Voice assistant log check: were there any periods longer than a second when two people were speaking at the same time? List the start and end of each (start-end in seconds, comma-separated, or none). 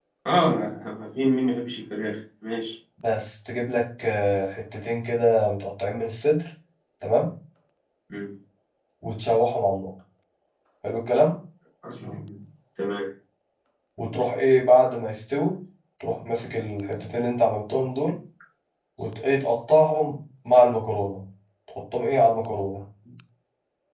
none